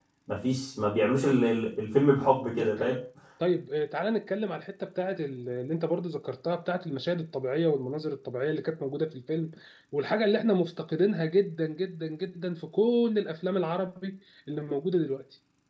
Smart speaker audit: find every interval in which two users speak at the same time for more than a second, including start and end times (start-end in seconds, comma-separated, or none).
none